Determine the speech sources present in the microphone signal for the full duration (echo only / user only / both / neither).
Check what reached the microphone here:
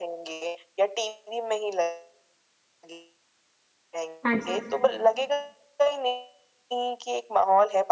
both